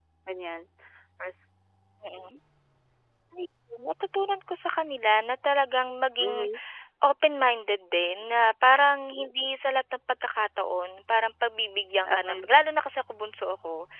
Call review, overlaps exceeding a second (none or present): none